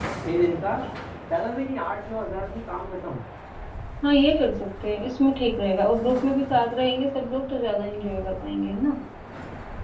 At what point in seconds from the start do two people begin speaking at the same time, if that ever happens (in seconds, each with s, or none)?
none